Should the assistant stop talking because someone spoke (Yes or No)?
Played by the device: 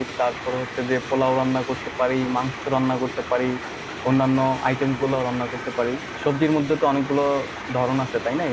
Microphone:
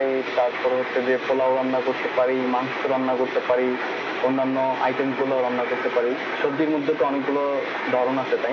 No